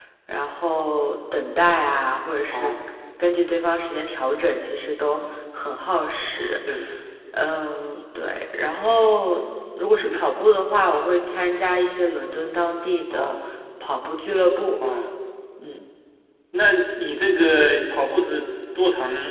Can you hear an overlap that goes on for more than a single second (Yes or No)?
No